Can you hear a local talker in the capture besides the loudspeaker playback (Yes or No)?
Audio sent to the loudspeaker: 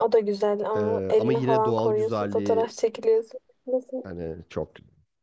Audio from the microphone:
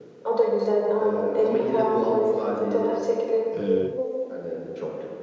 Yes